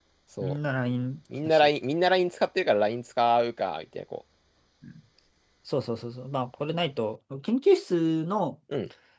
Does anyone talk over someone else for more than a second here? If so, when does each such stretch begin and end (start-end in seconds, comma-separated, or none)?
none